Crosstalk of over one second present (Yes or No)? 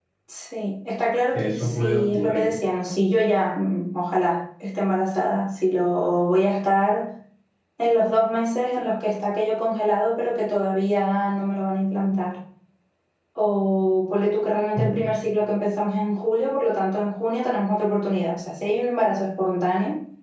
Yes